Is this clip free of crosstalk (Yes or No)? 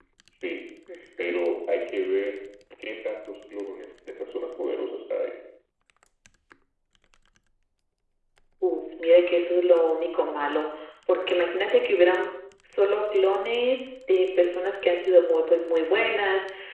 Yes